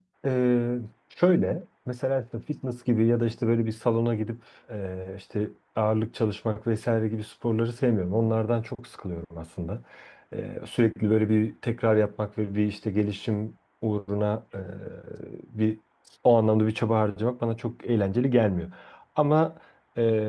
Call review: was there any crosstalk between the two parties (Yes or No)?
No